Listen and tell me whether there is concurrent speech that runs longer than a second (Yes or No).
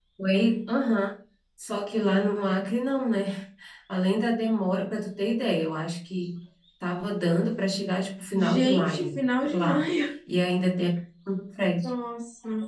Yes